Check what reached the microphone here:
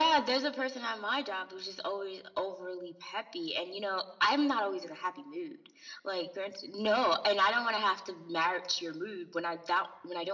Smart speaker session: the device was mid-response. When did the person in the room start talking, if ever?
none

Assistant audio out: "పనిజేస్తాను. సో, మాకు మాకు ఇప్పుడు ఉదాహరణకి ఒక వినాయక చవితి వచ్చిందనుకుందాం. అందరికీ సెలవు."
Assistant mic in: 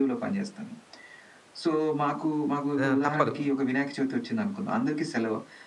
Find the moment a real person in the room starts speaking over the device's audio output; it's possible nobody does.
2.8 s

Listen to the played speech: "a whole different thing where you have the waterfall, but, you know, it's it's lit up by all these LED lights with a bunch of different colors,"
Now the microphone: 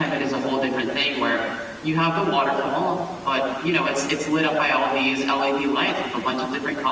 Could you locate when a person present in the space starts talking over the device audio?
none

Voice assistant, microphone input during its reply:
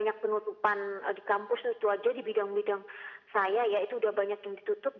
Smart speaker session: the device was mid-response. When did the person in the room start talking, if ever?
none

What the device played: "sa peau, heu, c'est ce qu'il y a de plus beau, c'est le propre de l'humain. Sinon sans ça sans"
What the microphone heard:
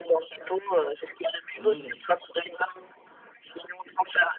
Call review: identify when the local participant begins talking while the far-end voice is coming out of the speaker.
1.6 s

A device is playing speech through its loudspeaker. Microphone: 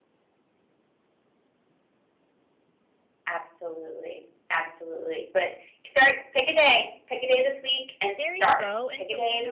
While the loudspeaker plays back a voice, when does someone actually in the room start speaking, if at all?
8.2 s

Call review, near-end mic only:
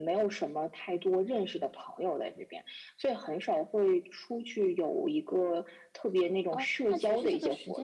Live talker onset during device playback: 6.5 s

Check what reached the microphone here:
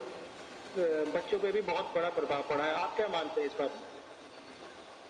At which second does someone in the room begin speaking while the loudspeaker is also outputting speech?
none

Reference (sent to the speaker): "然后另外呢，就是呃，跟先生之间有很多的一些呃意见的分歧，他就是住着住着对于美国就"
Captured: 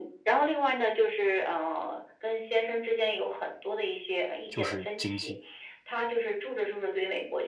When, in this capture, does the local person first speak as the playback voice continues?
4.5 s

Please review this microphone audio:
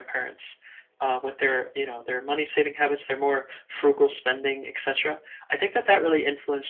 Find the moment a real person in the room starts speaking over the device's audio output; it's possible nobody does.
none

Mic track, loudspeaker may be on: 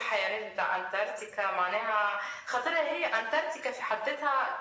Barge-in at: none

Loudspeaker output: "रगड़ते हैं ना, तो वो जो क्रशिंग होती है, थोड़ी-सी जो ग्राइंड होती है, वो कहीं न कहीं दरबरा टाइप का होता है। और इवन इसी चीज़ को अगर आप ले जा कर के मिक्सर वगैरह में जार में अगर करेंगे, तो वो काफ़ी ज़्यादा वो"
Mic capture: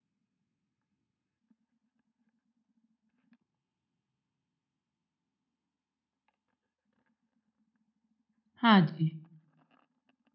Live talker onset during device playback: 8.6 s

